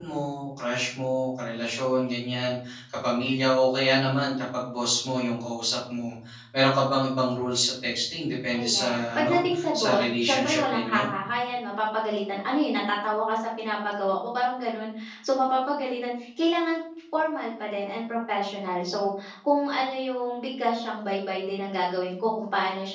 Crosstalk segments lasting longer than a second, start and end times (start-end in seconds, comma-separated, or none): 8.5-11.0